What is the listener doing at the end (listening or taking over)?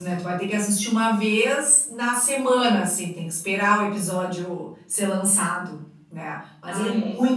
taking over